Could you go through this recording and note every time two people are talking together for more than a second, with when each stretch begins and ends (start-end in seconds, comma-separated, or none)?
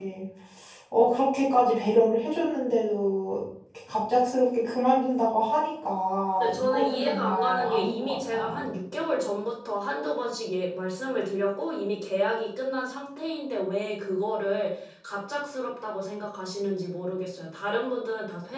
6.4-8.6